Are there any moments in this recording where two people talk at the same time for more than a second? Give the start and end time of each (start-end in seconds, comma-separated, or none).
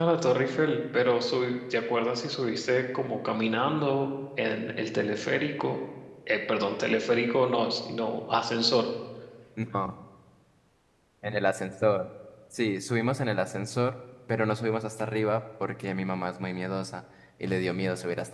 none